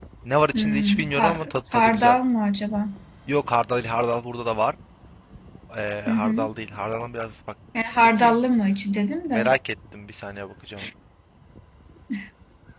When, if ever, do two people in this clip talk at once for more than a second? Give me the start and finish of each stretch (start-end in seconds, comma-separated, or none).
0.5-2.2